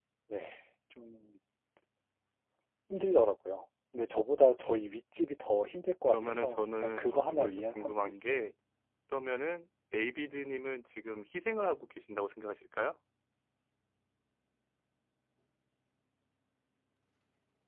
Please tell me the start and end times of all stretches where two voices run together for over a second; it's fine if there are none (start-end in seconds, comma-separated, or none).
6.0-8.3